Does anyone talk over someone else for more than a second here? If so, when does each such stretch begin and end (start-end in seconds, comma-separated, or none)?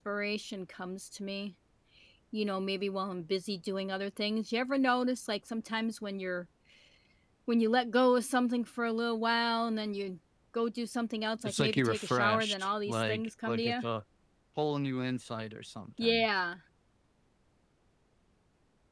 11.4-13.7